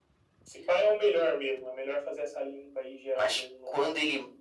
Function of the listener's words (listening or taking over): taking over